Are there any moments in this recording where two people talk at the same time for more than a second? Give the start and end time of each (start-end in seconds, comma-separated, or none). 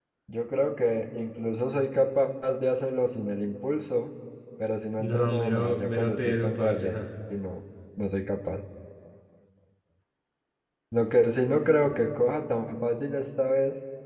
5.0-7.0